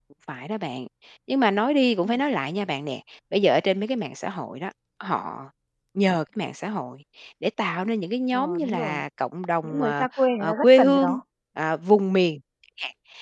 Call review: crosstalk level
present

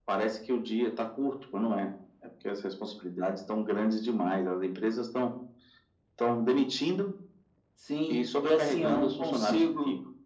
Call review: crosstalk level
present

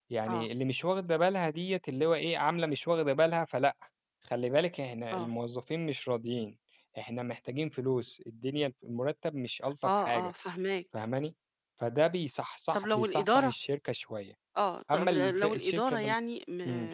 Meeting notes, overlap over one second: present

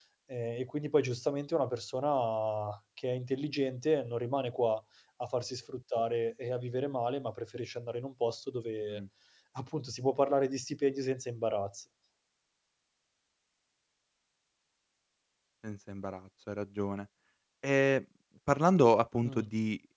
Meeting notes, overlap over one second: none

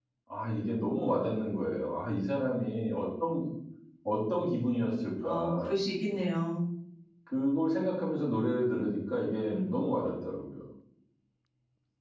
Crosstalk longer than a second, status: none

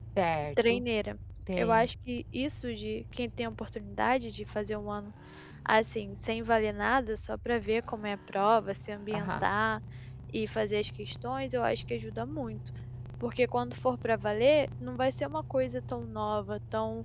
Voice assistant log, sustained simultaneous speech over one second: none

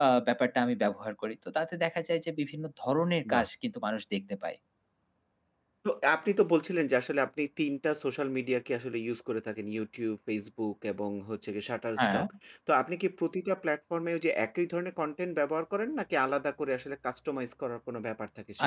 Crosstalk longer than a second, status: none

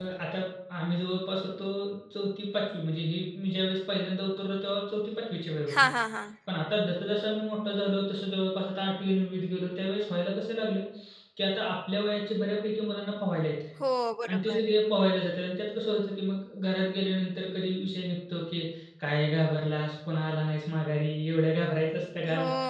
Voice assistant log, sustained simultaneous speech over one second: none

